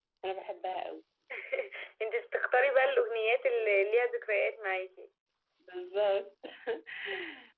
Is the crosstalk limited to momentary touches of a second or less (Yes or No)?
Yes